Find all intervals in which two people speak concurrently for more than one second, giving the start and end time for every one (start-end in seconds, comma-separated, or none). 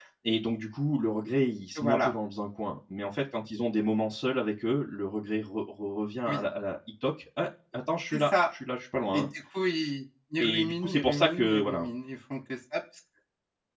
10.4-11.9